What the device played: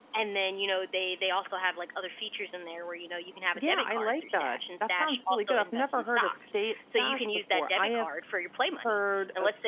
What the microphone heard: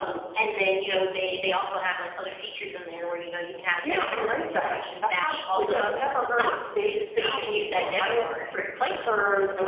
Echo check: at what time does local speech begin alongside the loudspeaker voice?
none

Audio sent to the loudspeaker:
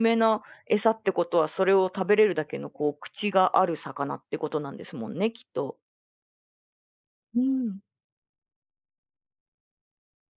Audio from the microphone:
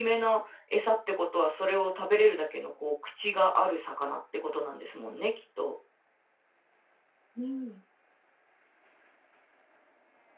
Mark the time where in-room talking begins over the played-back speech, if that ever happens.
none

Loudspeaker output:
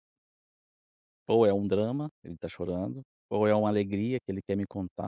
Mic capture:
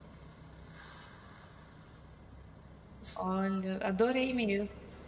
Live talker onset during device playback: 3 s

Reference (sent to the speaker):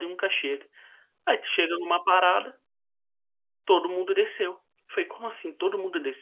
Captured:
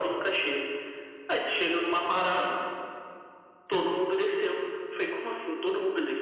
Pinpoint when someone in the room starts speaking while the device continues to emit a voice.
none

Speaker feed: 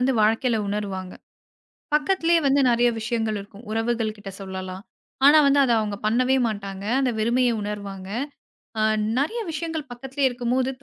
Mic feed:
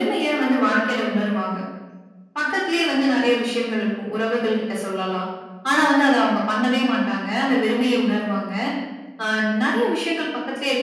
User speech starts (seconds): none

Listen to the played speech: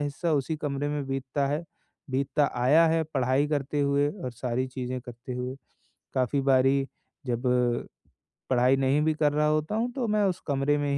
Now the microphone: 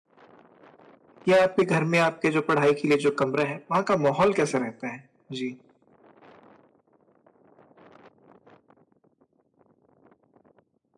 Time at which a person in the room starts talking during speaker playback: 1 s

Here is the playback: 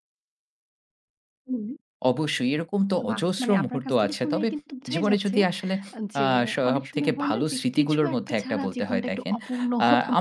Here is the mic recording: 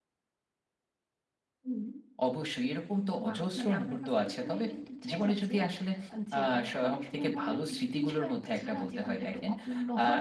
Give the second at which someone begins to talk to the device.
none

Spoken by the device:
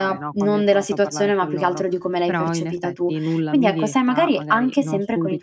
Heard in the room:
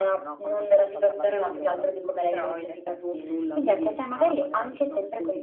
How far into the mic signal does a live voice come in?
none

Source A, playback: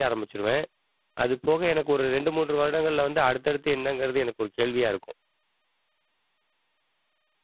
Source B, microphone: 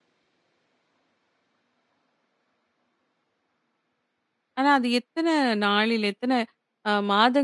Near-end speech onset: 5 s

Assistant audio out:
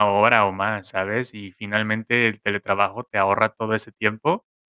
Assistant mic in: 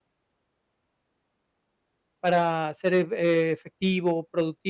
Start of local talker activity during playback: 2 s

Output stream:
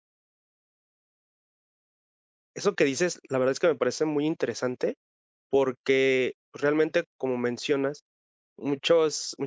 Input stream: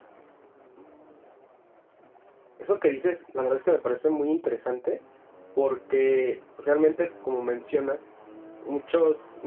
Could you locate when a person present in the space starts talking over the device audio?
none

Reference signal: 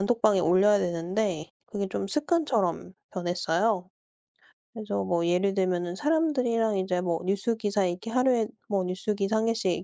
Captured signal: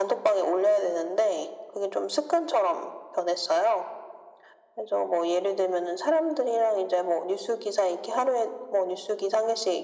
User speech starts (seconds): none

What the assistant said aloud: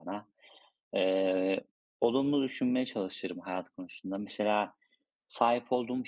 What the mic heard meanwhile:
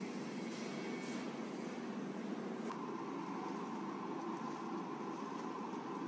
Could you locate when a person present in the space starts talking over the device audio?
none

